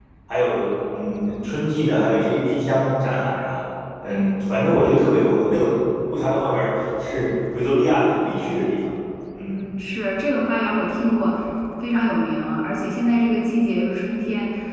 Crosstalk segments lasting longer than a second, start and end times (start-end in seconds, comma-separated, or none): none